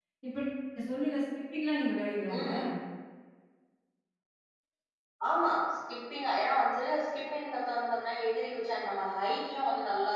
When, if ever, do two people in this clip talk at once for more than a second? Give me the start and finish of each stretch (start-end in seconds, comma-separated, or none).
none